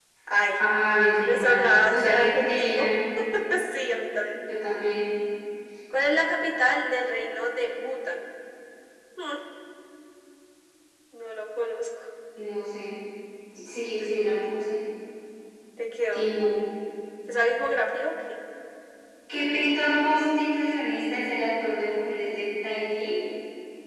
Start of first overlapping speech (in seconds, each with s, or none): 1.3 s